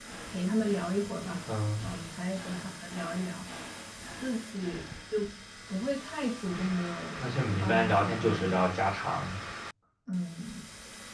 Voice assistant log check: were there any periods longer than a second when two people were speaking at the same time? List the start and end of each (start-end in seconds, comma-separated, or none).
7.2-8.6